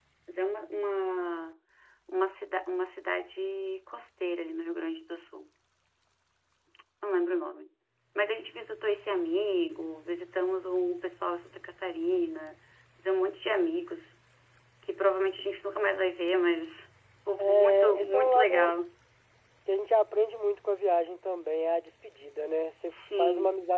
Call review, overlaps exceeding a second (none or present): present